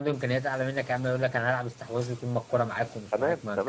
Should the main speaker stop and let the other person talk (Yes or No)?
Yes